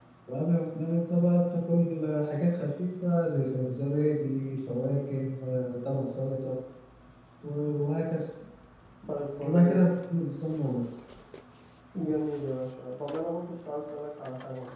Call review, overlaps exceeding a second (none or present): none